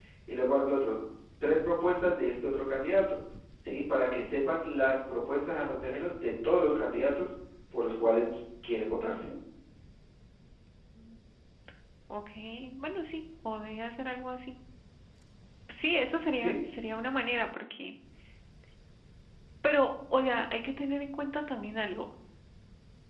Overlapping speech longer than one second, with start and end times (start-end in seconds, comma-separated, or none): none